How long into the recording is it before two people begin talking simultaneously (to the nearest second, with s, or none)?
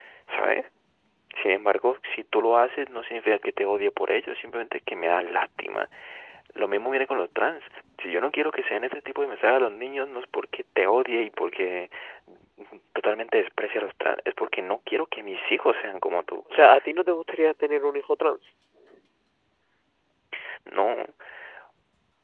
none